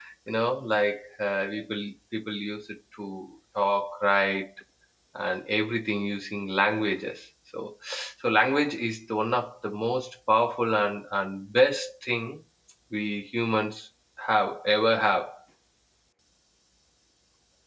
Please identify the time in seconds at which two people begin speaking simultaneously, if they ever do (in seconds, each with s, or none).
none